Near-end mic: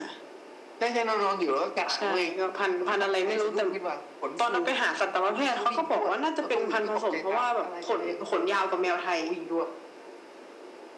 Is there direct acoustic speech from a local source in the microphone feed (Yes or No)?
No